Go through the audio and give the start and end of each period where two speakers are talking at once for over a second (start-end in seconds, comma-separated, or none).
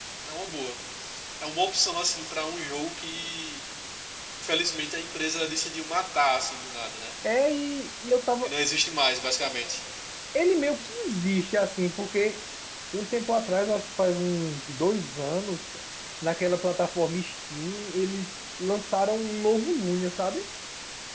none